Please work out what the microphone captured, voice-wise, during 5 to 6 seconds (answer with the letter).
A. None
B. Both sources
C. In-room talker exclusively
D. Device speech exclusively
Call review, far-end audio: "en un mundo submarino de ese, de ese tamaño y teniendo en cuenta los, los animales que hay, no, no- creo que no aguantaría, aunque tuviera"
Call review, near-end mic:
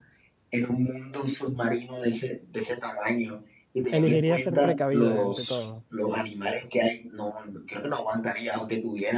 B